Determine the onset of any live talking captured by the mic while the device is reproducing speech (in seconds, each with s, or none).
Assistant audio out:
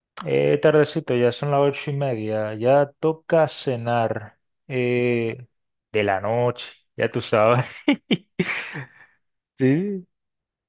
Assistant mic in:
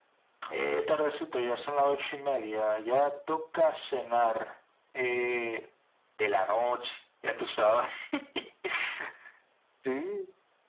none